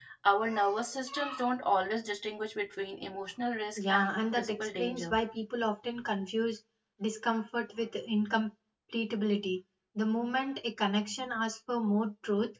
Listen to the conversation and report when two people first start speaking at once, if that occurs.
3.8 s

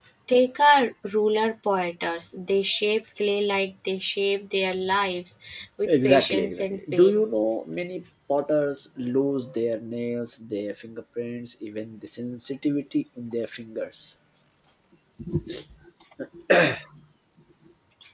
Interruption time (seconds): 5.9 s

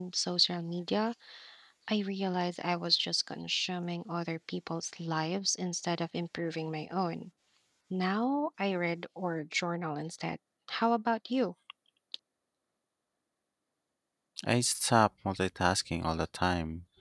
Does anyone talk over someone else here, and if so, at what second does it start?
none

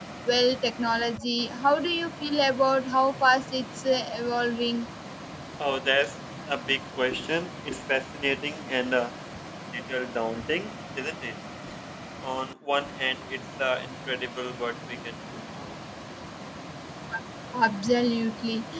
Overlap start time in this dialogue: none

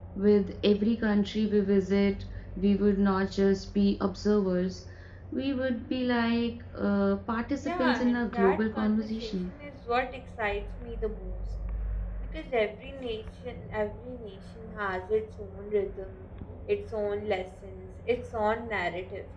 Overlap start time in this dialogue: 7.6 s

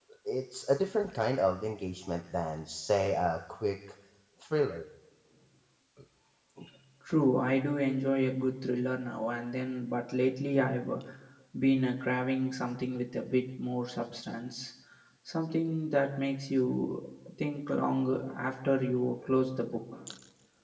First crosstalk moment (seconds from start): none

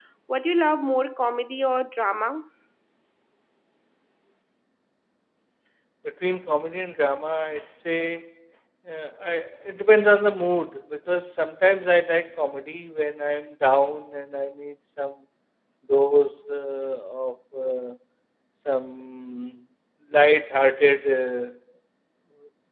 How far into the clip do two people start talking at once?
none

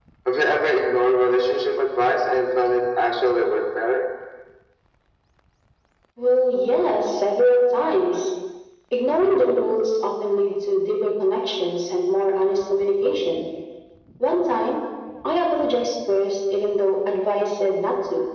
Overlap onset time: none

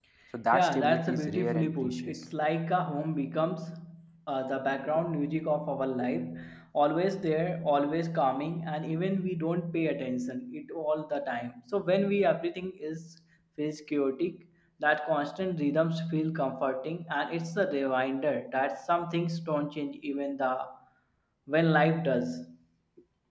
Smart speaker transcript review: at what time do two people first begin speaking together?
0.5 s

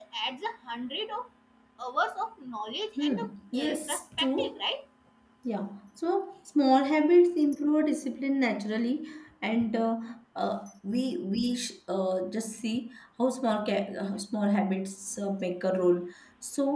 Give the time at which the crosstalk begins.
3.0 s

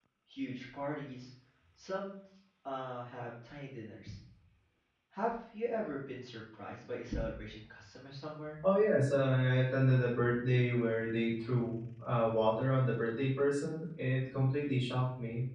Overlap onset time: none

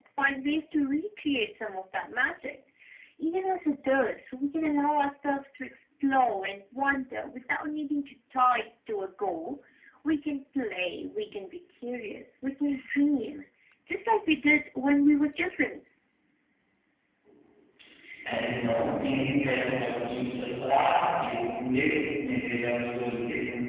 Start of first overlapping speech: none

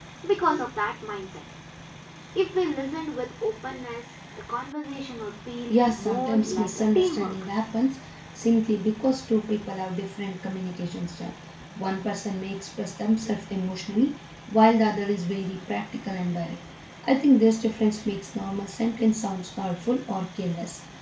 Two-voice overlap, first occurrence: 5.7 s

